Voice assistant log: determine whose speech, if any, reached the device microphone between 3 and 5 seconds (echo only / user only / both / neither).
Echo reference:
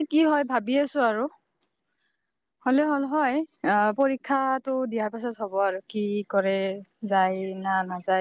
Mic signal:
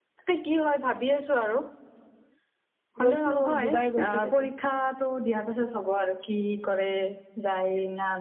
both